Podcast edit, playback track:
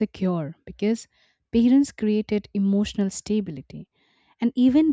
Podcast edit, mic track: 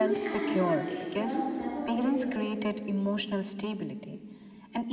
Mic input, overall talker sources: both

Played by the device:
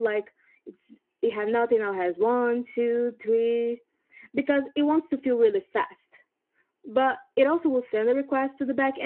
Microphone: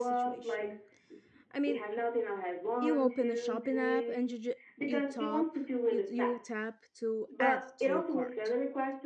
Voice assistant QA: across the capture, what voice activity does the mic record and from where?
both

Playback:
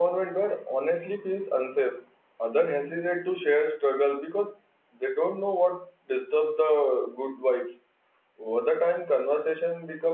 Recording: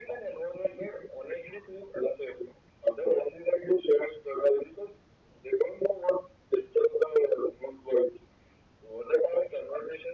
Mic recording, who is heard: echo only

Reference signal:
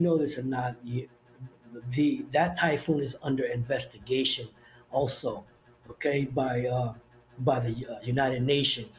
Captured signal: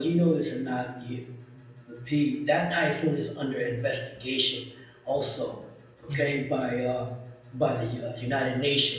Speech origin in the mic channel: both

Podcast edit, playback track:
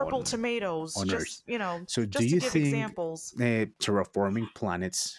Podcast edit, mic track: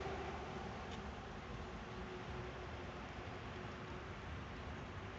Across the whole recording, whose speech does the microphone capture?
neither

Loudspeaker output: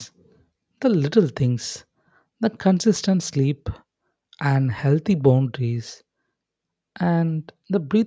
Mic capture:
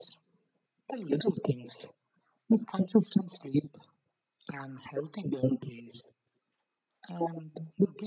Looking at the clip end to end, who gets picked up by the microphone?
echo only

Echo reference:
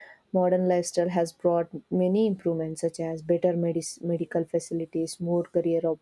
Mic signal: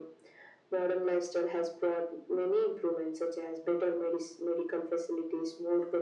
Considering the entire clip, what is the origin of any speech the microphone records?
echo only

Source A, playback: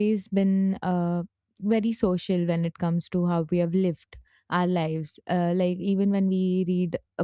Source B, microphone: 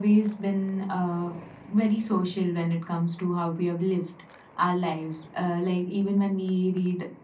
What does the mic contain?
echo only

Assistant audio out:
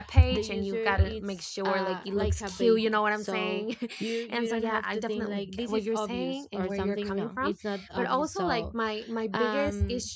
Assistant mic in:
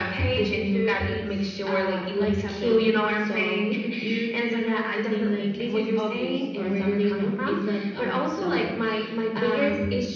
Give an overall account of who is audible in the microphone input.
echo only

